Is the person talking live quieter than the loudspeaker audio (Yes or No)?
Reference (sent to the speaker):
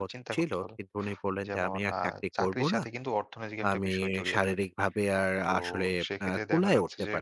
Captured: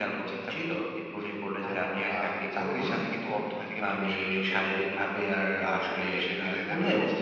Yes